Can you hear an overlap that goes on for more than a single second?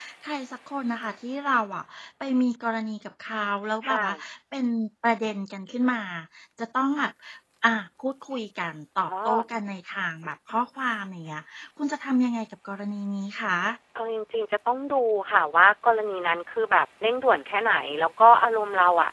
No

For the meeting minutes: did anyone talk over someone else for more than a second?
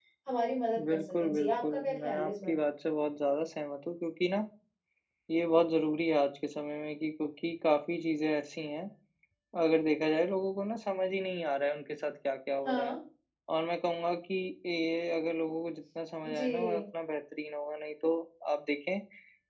Yes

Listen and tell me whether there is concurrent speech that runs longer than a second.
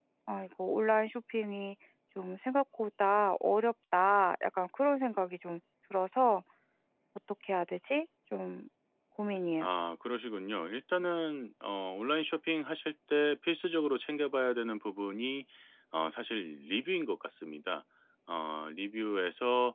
No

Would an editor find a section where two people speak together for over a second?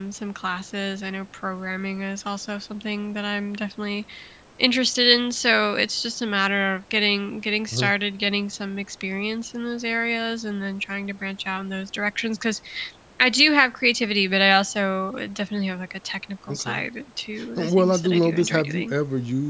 Yes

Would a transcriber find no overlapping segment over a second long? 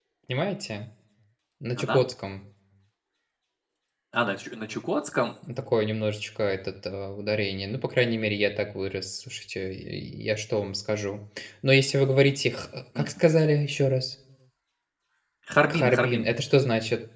Yes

